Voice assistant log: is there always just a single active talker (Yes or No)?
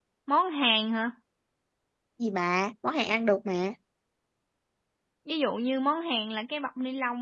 Yes